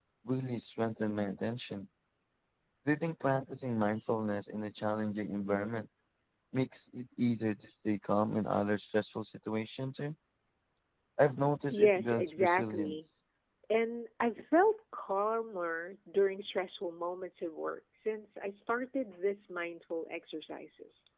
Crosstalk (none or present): present